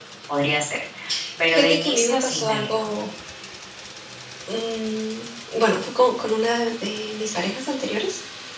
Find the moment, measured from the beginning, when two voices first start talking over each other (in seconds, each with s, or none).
1.5 s